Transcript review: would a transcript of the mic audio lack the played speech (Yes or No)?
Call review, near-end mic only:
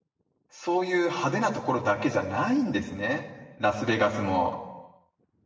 Yes